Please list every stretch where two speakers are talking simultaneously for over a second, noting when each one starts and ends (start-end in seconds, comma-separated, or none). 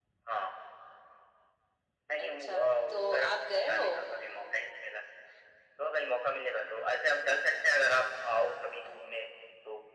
2.2-3.8